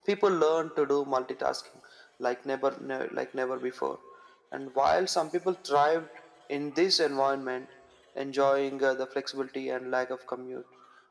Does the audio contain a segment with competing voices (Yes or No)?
No